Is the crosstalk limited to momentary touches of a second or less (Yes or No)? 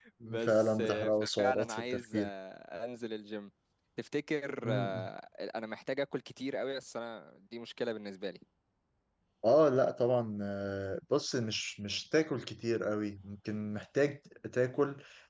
No